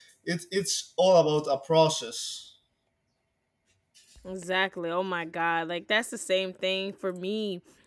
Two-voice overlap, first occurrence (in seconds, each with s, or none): none